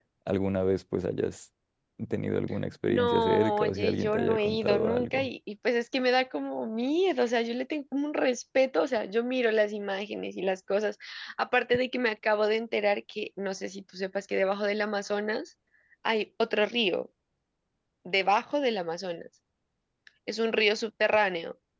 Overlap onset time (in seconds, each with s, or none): 2.9 s